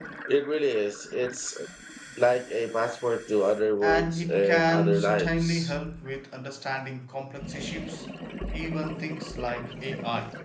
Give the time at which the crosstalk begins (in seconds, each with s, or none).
3.8 s